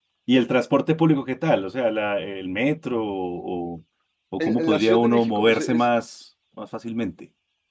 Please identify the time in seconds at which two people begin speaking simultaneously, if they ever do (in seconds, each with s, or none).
4.4 s